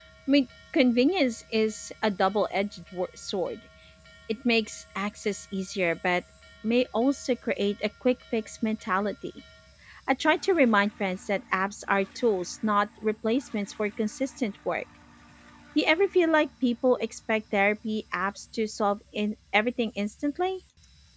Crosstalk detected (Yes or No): No